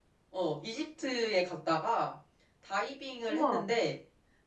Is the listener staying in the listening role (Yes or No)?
Yes